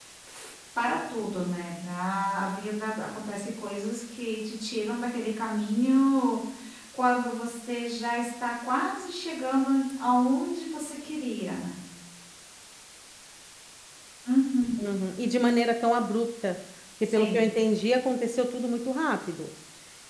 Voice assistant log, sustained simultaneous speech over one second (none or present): none